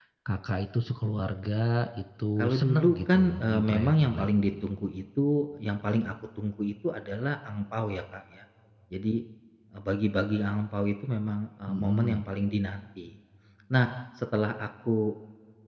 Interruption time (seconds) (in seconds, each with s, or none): 2.4 s